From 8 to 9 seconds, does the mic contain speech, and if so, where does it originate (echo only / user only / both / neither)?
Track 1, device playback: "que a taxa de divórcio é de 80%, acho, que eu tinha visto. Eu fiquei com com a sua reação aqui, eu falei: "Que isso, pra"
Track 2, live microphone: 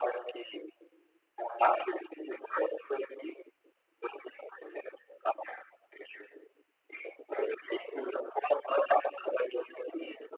echo only